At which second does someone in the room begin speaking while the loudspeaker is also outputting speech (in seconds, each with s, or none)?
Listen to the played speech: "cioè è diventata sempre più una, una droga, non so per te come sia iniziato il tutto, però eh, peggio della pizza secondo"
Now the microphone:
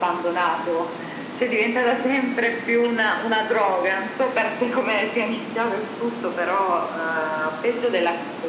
none